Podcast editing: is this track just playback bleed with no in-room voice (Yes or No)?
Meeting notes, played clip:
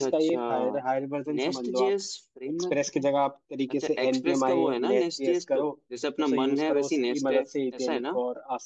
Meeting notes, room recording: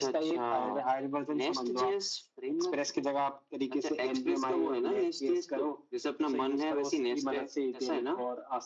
Yes